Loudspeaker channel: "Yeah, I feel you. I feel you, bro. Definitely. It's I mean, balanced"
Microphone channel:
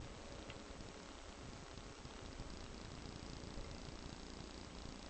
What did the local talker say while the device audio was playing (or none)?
none